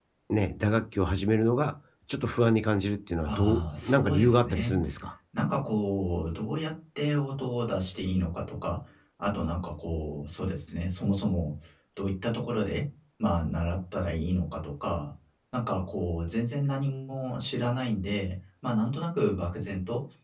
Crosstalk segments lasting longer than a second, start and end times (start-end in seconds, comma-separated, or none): 3.2-4.8